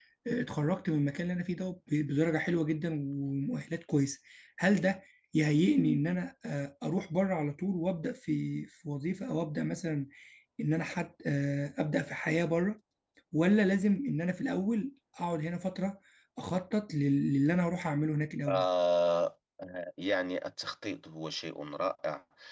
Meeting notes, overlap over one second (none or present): none